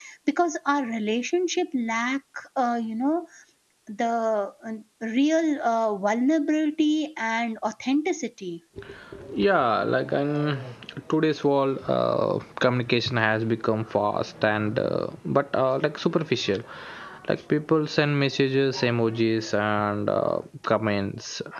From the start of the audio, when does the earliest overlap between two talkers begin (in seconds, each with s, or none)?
none